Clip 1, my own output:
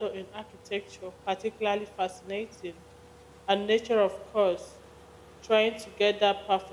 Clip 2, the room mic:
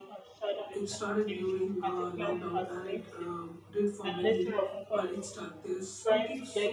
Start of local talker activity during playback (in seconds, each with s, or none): 0.7 s